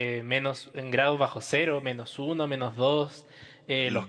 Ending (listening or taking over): listening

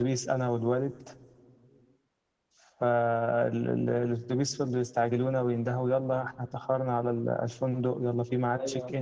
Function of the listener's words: listening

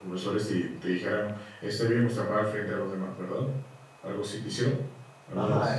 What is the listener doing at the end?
taking over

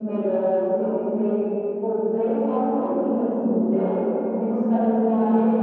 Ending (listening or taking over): listening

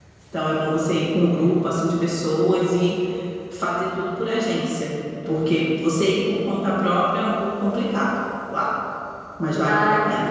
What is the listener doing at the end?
taking over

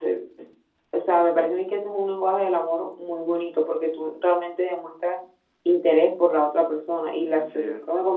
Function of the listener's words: listening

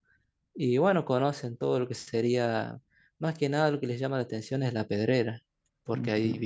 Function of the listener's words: listening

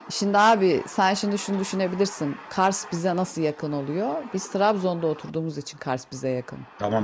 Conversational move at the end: taking over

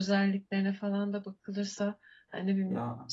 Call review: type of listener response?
listening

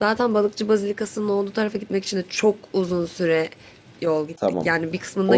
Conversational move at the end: taking over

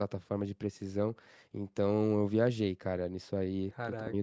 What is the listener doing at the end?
listening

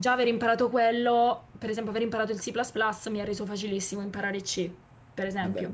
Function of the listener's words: listening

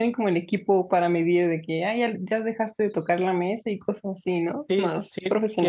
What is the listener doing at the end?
taking over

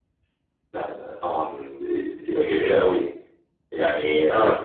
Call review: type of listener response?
taking over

